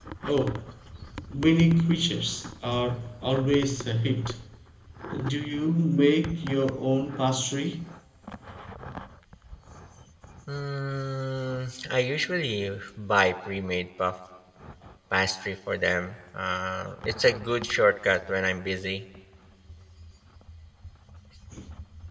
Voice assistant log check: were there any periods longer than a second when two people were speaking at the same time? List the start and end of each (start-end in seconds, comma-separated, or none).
none